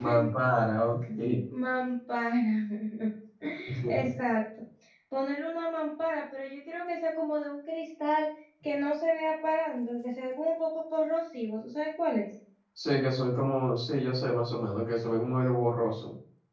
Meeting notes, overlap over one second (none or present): none